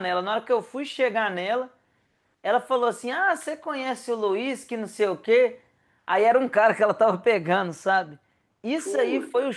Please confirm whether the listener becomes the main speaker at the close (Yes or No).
No